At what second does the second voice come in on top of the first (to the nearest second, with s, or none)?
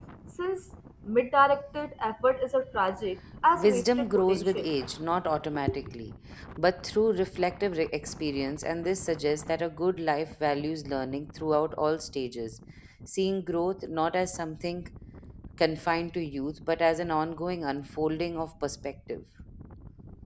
4 s